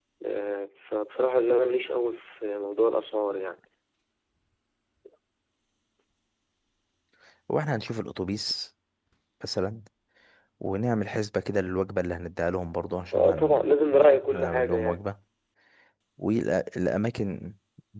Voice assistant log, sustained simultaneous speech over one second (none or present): present